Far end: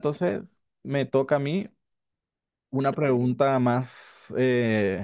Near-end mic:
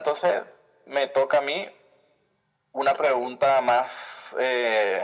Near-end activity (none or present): none